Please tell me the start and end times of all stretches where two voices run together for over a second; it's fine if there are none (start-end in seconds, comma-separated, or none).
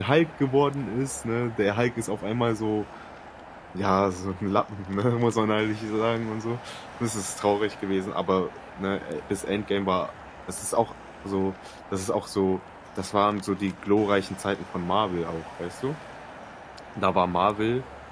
none